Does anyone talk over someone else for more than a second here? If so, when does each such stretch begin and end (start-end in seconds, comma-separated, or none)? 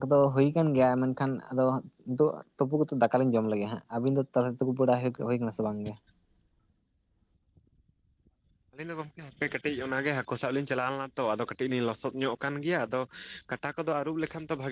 none